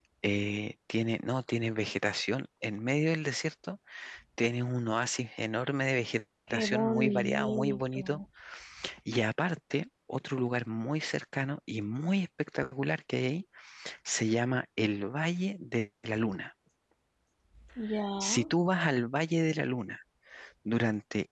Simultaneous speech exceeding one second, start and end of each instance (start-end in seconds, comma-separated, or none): 6.5-8.2